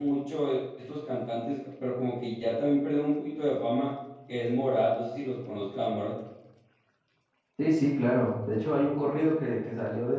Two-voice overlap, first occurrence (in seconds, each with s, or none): none